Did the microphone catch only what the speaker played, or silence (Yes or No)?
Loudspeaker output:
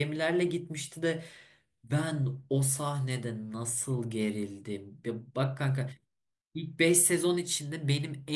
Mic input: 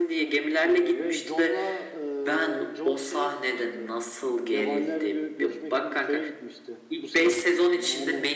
No